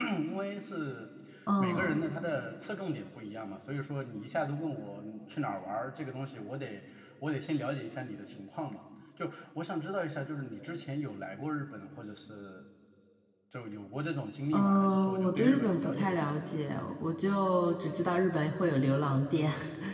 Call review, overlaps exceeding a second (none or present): present